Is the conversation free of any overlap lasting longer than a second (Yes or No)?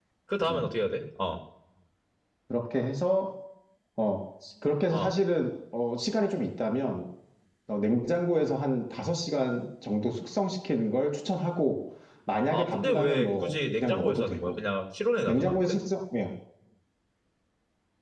No